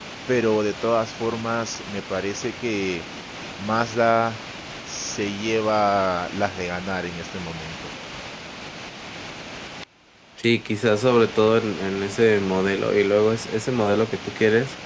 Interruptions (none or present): none